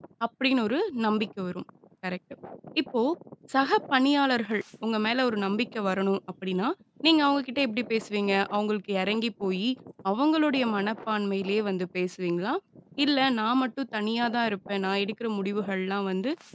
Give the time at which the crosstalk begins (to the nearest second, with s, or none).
none